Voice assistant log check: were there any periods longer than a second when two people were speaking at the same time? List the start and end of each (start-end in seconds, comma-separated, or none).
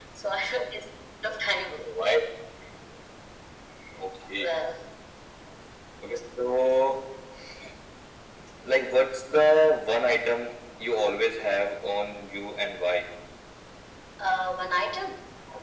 none